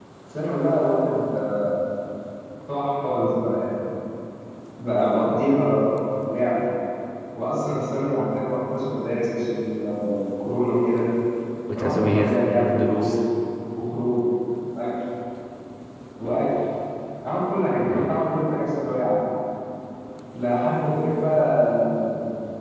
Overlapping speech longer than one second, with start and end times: 11.8-13.1

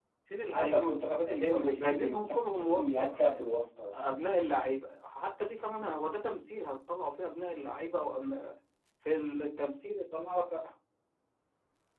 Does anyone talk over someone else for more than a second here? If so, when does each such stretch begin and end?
1.5-3.4

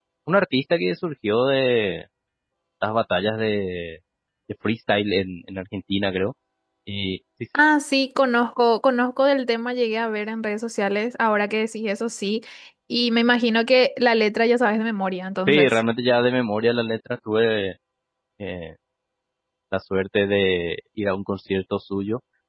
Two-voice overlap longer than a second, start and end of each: none

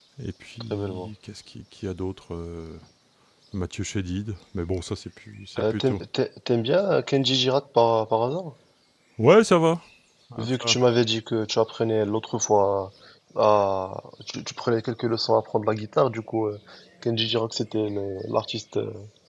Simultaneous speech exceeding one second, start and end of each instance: none

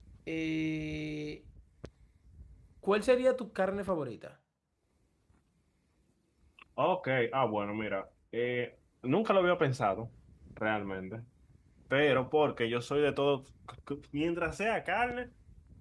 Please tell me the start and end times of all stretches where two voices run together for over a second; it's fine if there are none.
none

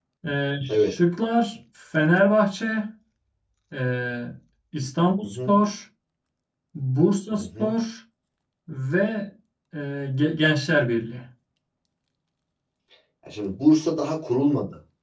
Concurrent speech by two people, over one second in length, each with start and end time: none

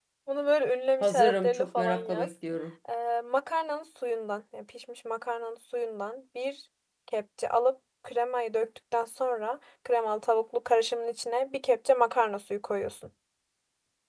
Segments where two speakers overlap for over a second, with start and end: 1.0-2.3

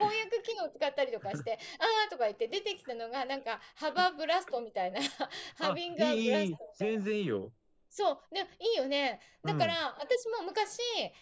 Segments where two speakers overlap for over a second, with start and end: 5.6-7.0

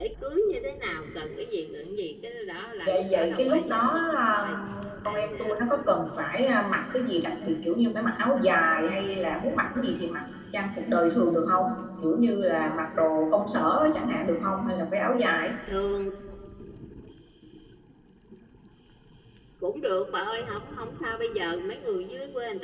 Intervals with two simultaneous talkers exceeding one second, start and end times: 2.9-4.6

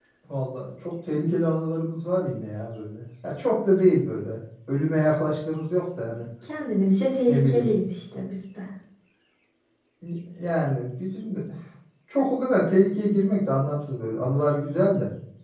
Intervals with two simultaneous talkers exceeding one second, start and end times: none

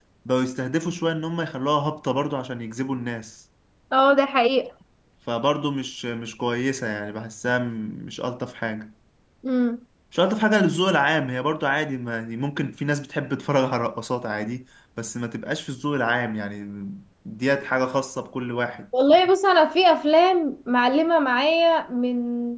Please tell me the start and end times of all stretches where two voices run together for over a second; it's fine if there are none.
none

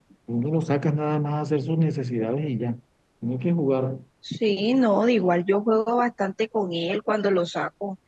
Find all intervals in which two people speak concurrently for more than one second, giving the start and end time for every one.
none

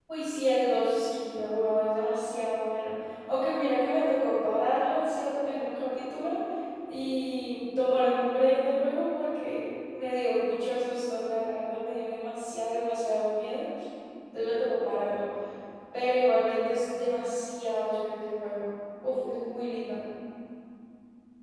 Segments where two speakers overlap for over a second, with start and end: none

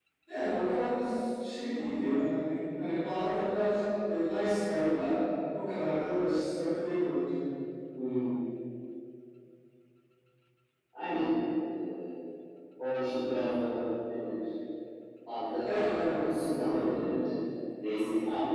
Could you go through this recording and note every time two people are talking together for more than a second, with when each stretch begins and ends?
15.6-17.0

